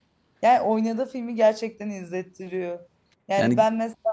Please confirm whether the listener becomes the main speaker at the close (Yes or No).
No